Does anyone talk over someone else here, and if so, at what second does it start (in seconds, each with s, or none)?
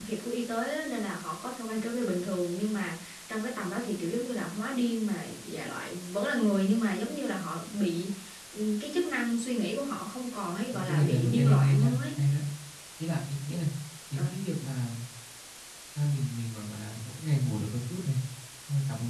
10.7 s